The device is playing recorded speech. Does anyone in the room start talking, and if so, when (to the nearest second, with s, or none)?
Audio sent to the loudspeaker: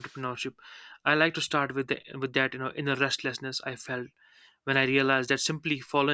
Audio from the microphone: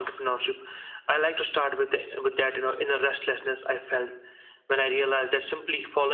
none